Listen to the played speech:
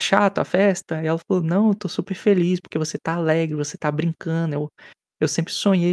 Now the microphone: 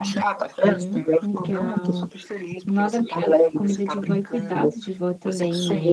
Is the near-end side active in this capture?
Yes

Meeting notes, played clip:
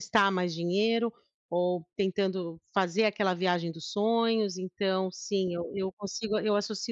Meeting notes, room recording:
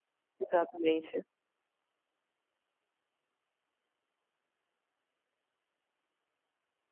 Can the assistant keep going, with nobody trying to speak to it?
No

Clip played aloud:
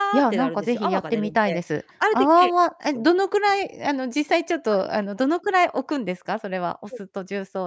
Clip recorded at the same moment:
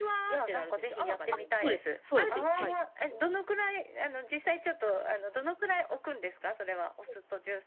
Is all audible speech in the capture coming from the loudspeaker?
No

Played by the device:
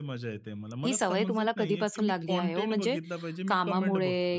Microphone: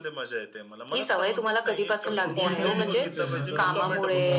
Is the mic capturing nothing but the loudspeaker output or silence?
No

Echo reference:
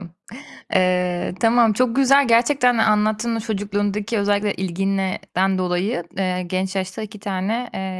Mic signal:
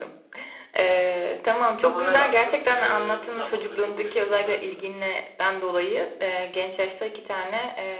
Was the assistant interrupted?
Yes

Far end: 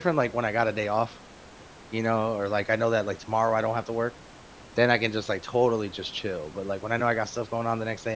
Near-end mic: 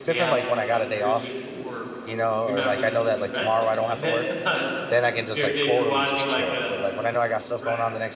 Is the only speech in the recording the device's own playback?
No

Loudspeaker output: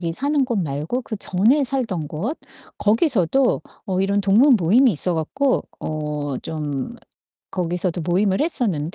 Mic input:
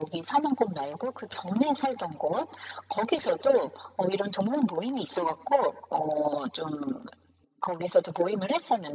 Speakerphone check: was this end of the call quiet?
Yes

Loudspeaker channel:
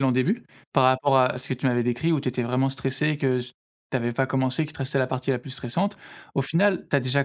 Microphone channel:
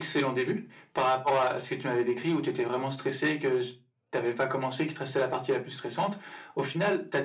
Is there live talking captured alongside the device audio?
No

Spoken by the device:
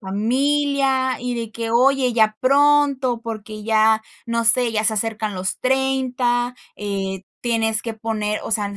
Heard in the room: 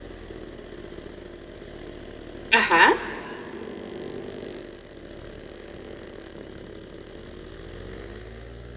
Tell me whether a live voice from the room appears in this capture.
Yes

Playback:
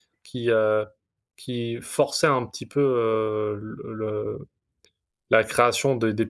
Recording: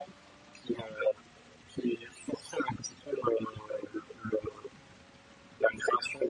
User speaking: No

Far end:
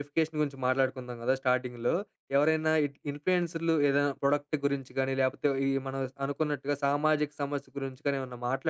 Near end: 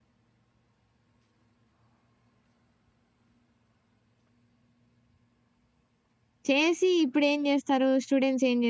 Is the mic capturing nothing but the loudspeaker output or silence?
No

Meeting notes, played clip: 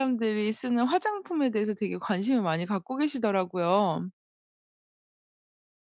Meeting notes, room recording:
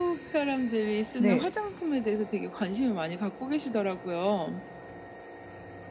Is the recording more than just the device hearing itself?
Yes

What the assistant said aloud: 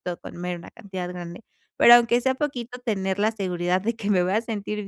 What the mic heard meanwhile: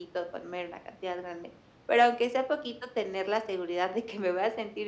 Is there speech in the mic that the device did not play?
No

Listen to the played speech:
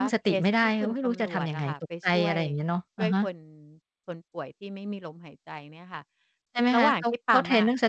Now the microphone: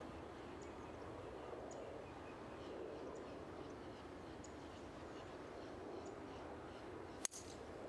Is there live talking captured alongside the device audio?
No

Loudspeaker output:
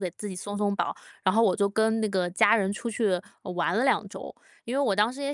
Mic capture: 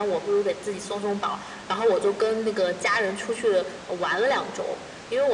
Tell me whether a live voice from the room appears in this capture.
No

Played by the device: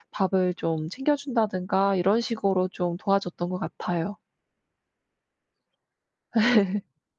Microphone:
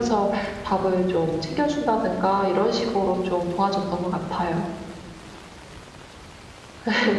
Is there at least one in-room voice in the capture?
No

